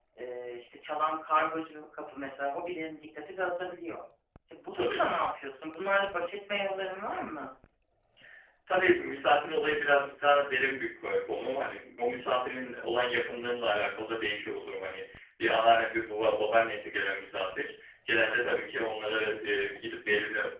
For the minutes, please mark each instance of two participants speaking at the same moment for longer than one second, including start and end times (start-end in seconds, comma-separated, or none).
none